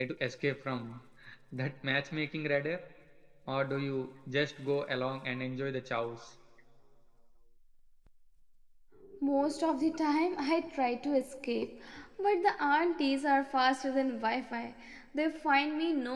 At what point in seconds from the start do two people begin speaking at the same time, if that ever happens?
none

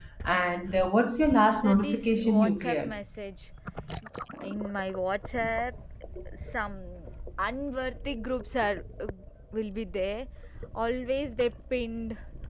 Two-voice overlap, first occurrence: 1.6 s

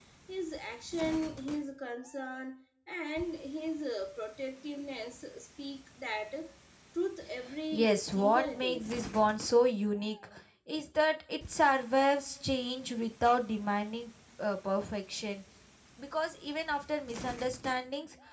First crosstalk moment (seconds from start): 7.7 s

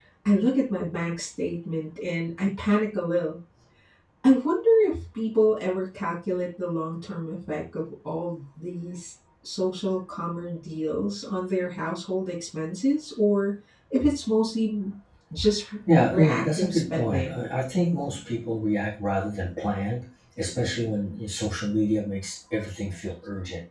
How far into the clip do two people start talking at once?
16.1 s

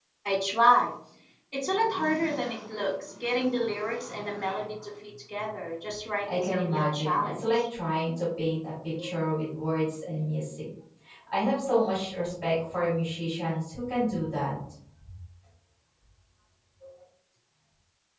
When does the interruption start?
6.3 s

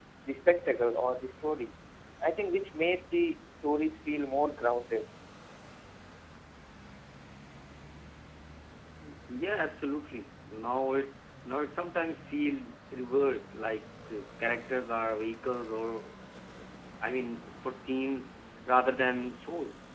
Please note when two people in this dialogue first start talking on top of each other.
none

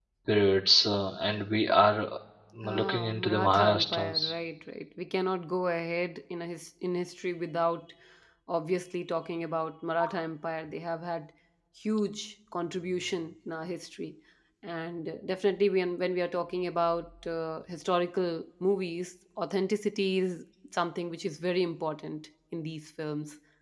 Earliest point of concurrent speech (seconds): 2.6 s

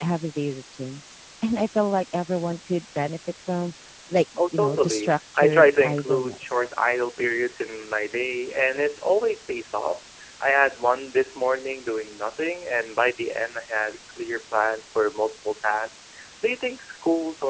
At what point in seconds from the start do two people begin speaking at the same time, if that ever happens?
4.4 s

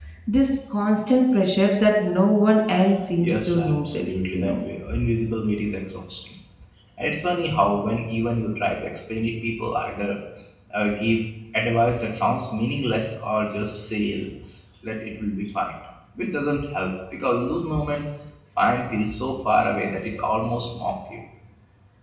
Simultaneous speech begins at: 3.2 s

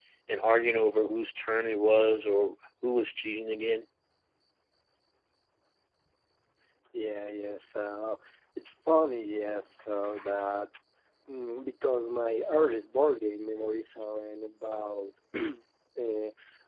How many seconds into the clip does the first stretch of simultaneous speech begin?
none

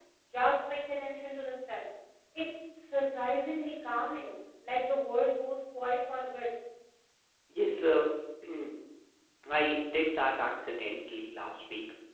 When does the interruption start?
none

